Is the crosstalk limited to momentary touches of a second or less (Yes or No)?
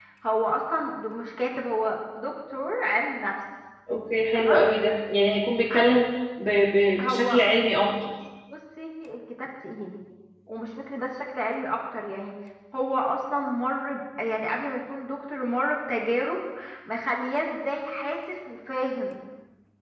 Yes